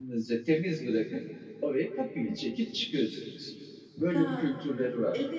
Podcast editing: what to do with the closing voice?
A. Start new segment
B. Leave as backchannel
A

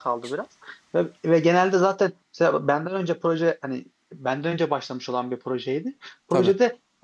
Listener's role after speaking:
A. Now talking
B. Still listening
B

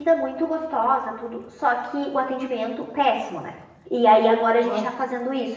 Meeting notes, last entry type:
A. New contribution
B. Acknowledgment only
B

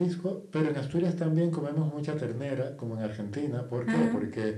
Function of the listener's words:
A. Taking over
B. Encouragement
B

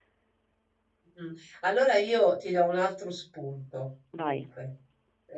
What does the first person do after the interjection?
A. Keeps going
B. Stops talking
A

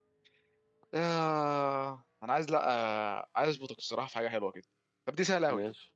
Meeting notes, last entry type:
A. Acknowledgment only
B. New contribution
A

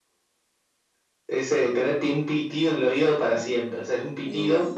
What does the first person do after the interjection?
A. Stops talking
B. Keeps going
B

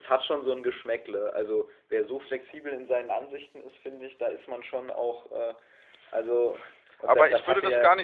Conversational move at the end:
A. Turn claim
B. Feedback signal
A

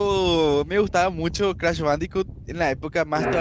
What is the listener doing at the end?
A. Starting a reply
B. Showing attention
B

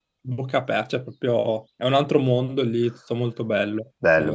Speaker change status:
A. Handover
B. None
A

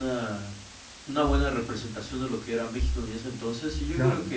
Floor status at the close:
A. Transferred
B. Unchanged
B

